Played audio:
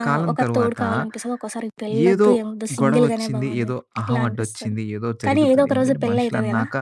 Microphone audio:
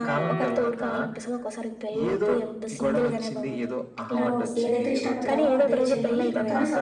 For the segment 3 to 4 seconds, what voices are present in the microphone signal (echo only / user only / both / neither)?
echo only